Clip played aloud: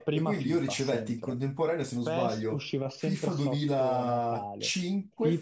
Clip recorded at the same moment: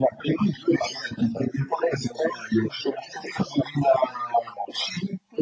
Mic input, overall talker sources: echo only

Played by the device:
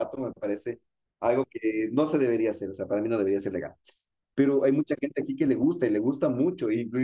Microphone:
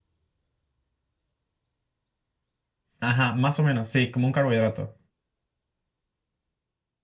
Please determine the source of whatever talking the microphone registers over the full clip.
user only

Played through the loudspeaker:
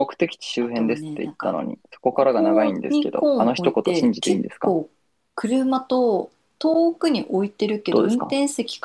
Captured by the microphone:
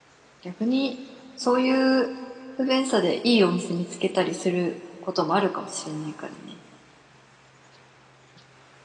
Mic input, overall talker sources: user only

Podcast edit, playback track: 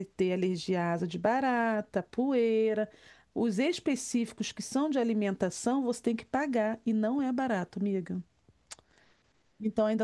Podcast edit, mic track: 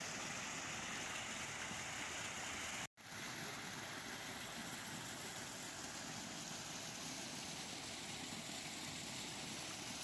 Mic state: neither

